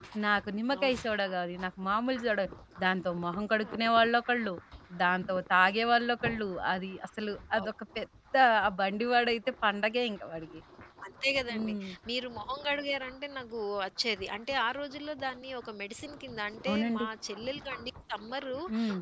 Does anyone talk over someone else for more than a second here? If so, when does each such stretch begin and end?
none

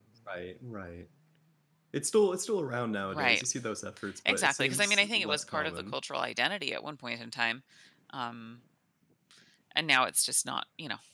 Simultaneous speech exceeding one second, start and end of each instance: 4.3-6.0

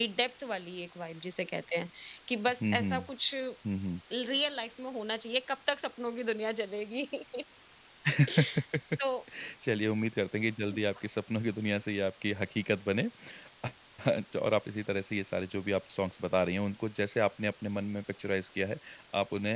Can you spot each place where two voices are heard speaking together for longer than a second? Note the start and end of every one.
none

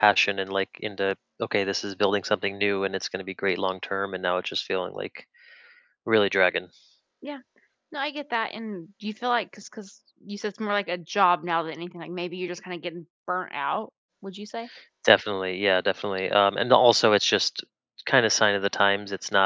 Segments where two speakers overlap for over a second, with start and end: none

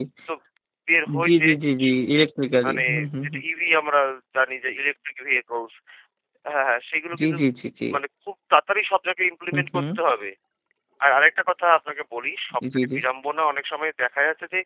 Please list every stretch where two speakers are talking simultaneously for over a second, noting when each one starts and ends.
none

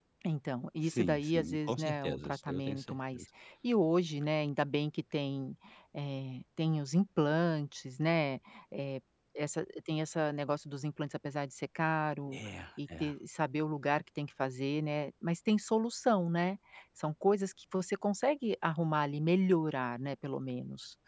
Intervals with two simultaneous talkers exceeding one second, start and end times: 0.8-3.2

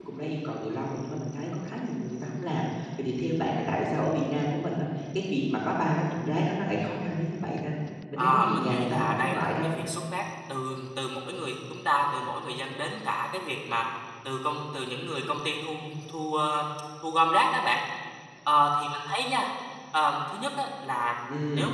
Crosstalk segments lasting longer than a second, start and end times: 8.2-9.7

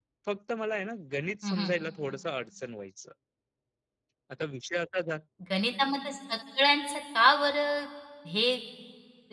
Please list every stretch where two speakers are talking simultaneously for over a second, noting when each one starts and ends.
none

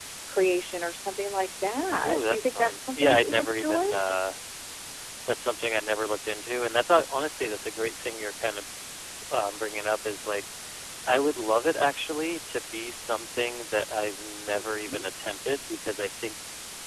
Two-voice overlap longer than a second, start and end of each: 2.1-3.8

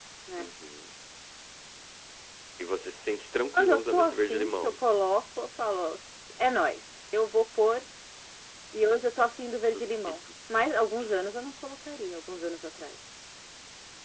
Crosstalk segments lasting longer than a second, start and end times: 3.5-4.7

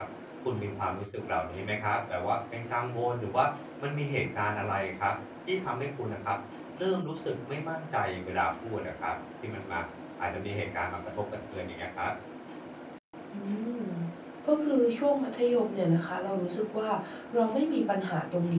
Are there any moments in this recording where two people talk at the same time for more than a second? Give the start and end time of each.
none

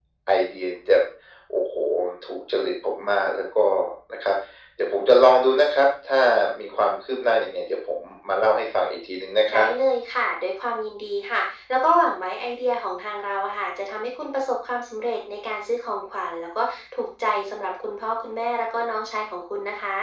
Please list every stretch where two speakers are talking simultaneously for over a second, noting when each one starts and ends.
none

